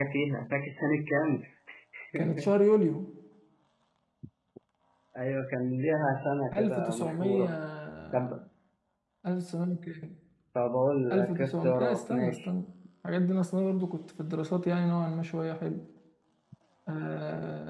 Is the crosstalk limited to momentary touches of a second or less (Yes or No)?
No